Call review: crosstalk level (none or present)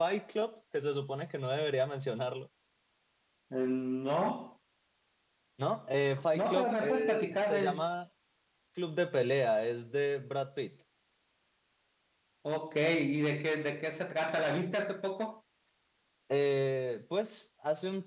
present